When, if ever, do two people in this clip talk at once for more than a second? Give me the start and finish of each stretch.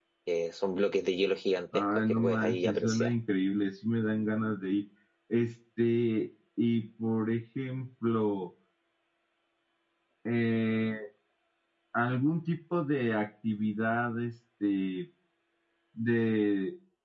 1.7-3.1

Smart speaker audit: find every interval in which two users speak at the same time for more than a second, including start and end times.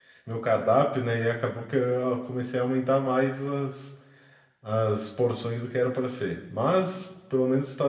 none

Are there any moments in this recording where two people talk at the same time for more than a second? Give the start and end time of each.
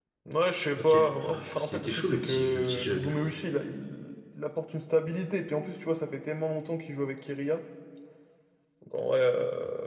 0.8-3.2

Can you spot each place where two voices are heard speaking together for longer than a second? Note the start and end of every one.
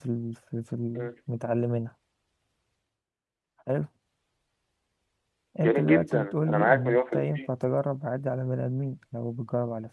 5.6-7.5

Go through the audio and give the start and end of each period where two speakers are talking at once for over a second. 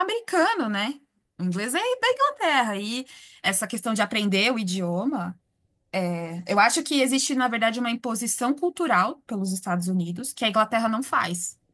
none

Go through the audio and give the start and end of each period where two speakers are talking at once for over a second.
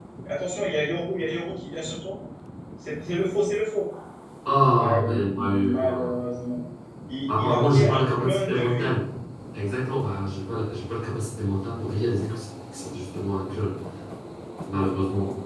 4.8-6.1, 7.4-8.9

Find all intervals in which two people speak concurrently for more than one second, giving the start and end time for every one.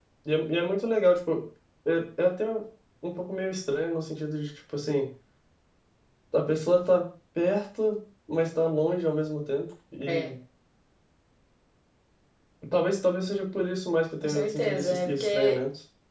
14.2-15.6

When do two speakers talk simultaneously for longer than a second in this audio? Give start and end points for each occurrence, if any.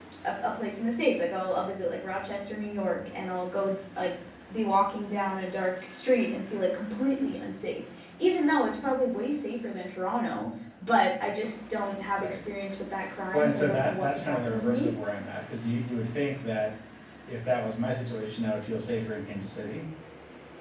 13.3-14.9

